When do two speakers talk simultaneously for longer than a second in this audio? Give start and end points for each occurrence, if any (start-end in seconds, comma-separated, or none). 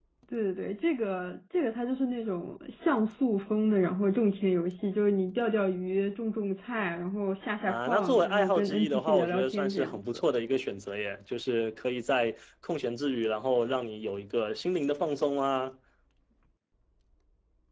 7.7-10.3